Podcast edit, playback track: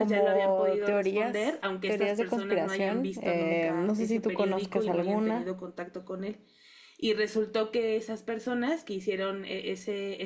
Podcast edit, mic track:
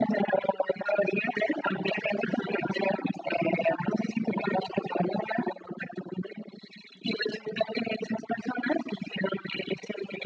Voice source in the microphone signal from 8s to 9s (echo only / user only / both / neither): echo only